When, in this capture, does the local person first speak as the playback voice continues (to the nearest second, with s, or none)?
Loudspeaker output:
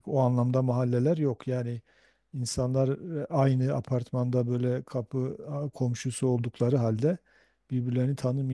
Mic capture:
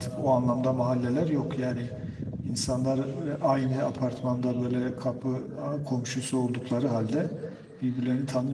none